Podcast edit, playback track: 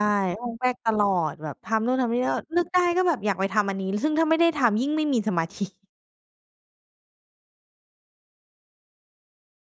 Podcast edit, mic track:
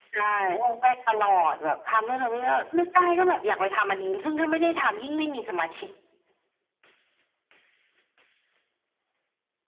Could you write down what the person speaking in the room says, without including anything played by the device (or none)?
none